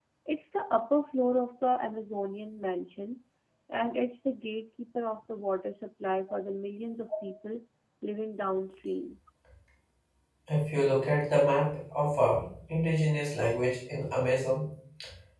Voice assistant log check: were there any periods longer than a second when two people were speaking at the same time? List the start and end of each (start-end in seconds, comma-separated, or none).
none